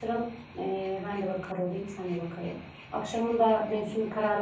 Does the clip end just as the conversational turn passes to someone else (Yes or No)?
No